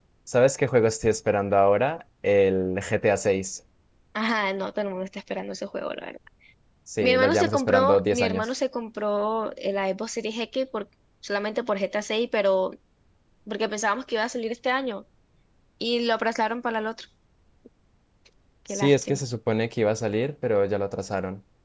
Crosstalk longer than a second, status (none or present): present